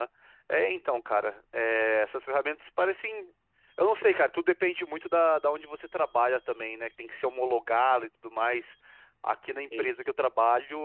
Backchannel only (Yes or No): Yes